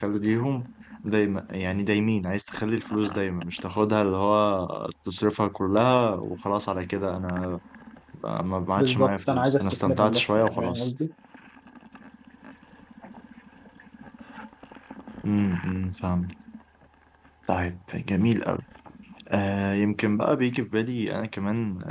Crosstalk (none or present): present